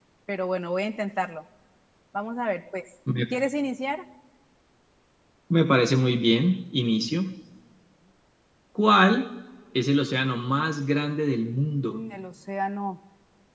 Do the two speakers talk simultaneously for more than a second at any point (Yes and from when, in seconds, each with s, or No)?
No